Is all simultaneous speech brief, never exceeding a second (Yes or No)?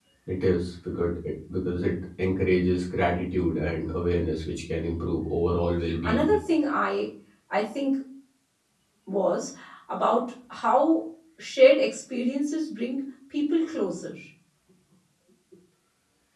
Yes